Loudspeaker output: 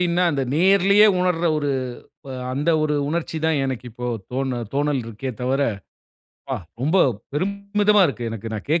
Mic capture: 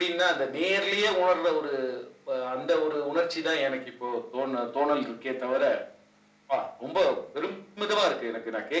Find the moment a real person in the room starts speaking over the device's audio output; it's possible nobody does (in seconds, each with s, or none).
none